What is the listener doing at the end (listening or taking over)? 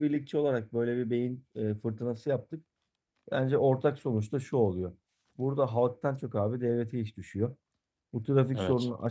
listening